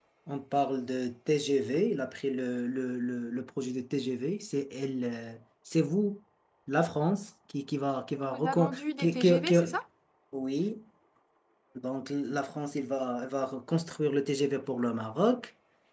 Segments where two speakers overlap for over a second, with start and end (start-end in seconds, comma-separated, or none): 8.2-9.6